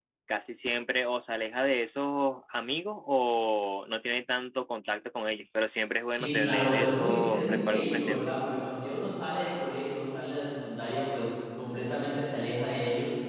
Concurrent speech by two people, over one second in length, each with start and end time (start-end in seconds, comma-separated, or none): 6.1-8.3